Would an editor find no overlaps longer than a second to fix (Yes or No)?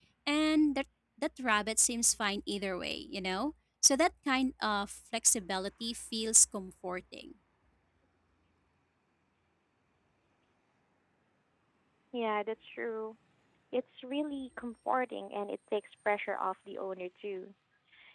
Yes